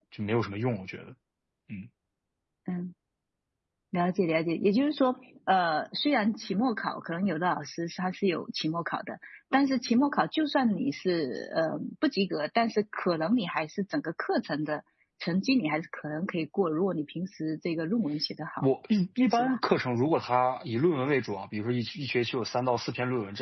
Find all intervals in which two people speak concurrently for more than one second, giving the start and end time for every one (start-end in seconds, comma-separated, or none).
none